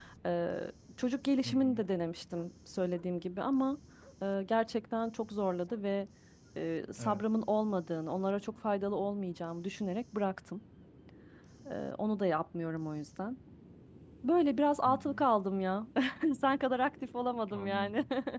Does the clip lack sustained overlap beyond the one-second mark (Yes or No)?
Yes